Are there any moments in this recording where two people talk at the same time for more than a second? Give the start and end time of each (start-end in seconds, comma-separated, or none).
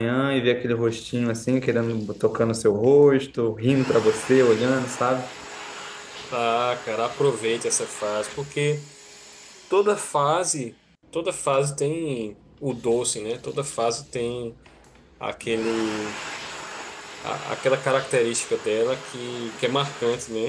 none